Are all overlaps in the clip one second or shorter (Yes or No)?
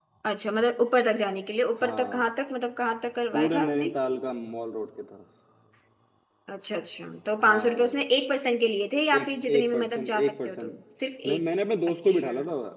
No